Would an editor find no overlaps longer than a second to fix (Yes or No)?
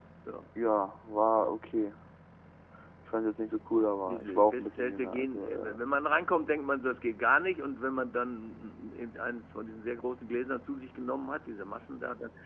No